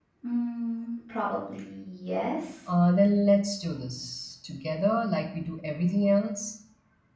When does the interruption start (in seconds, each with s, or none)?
none